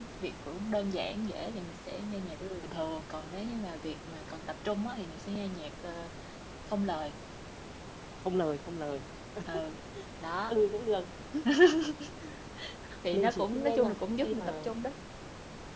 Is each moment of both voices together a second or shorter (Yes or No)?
No